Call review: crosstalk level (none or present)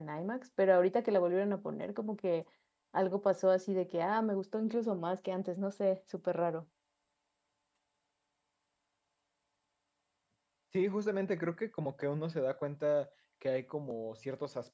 none